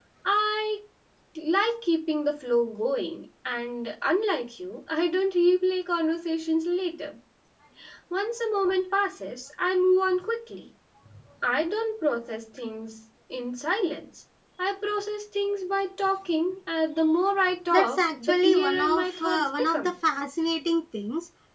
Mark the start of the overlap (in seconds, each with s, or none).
17.7 s